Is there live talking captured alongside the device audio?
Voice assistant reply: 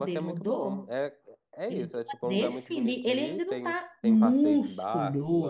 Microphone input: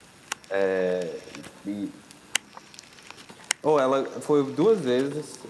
Yes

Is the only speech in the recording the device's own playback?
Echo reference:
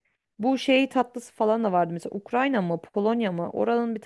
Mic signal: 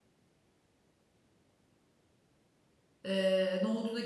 No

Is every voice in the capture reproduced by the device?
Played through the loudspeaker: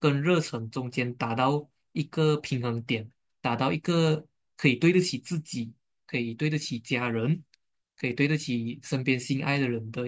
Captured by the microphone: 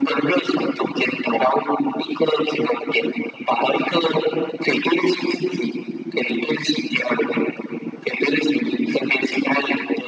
Yes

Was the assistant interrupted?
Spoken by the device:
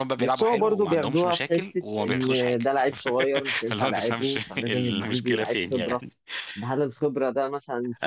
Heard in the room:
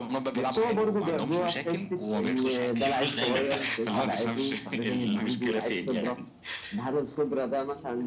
Yes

